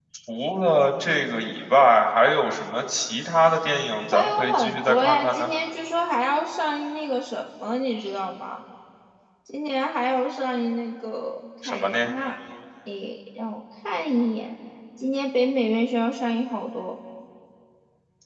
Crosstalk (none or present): present